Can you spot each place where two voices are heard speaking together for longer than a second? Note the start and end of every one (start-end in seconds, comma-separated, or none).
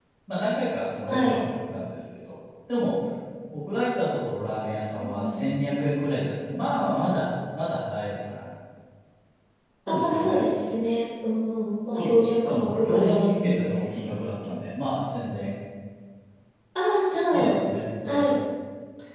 12.2-13.6